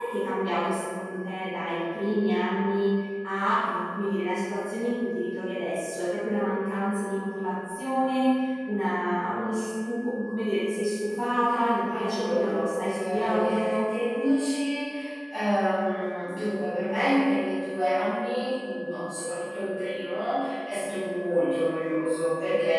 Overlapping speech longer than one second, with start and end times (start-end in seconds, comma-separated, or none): 11.9-13.7